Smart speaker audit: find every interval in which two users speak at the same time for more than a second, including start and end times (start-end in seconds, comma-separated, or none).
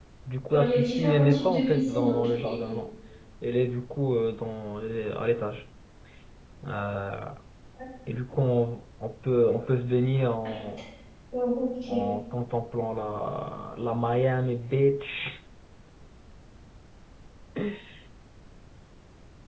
0.5-2.7